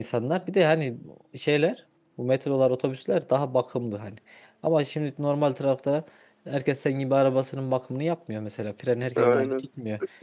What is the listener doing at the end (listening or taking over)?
listening